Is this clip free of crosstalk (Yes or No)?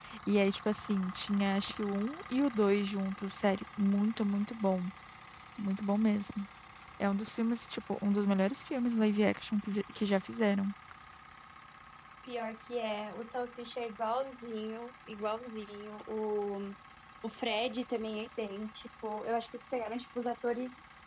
Yes